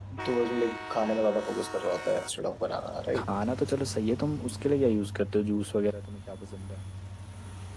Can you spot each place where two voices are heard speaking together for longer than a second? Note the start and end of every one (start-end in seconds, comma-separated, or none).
none